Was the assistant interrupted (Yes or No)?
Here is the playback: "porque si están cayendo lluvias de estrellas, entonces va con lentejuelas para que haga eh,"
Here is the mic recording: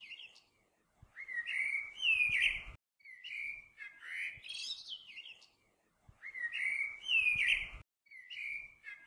No